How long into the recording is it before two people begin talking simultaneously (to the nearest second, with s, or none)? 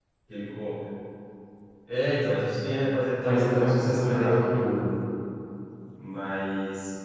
3 s